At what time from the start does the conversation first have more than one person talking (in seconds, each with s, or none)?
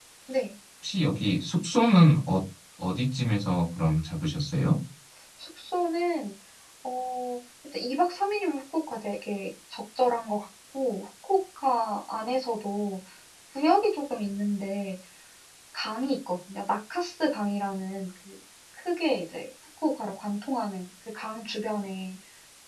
none